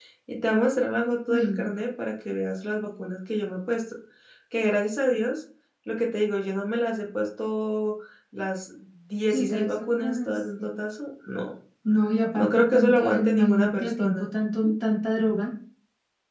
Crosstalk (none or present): present